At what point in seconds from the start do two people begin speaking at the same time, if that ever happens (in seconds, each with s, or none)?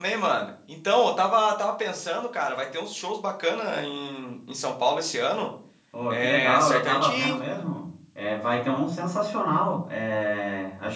6.1 s